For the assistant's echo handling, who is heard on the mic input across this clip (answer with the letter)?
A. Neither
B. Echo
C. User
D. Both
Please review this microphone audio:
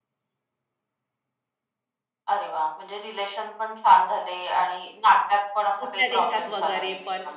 D